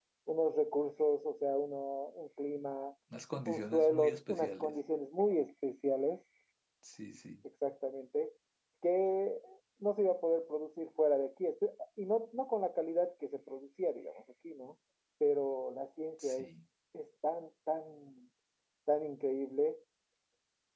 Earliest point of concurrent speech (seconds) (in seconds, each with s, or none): 3.5 s